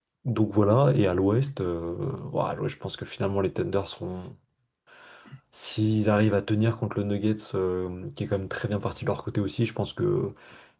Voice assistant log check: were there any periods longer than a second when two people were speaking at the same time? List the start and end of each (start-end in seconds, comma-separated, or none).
none